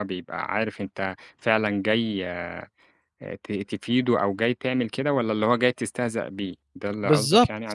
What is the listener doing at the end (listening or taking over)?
taking over